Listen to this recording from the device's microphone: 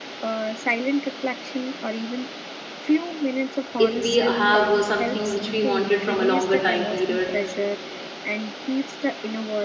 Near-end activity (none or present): present